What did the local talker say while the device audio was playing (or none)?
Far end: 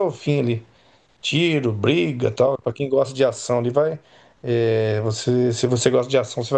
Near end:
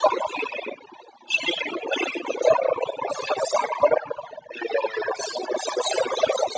none